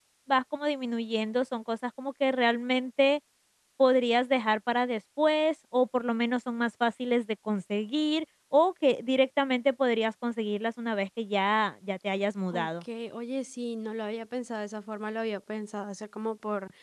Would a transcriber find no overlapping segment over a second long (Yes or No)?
Yes